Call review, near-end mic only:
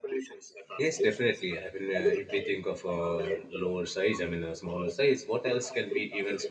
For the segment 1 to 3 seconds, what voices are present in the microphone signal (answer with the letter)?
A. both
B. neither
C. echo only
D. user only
A